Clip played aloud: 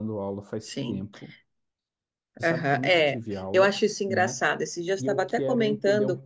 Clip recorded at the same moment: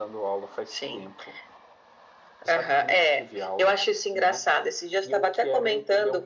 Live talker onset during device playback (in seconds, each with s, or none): none